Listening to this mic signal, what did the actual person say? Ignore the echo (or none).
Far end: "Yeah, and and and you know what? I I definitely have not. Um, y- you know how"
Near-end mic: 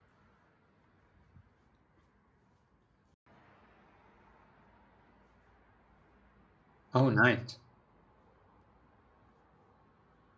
oh nice